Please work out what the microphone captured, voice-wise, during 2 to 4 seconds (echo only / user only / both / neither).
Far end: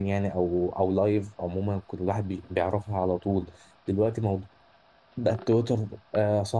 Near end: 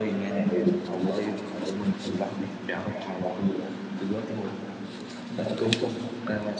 echo only